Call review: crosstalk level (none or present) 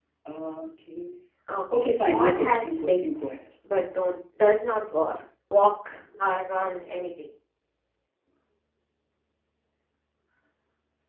present